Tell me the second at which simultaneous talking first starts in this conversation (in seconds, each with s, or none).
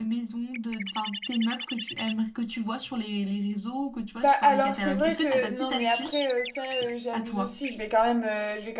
4.2 s